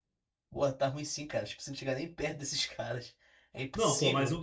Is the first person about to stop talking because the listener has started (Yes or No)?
Yes